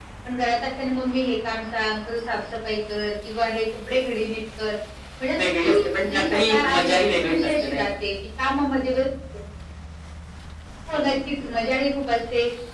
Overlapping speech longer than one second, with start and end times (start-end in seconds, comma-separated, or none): 5.4-7.8